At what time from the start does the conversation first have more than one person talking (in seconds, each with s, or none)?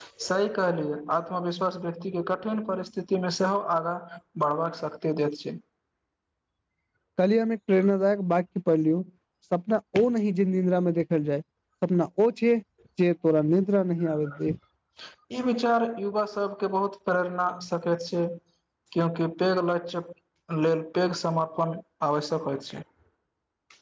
none